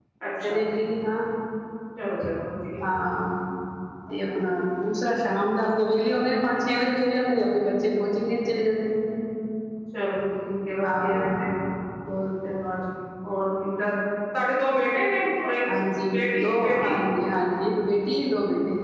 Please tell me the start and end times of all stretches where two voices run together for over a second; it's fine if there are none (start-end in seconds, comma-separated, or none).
none